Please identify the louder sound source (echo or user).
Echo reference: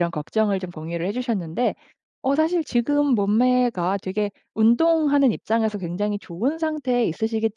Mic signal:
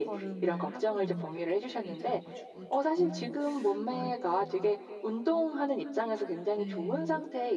echo